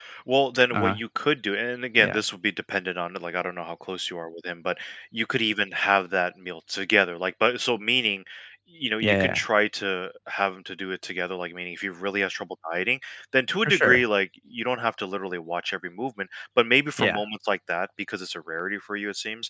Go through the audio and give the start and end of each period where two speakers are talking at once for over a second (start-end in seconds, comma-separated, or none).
none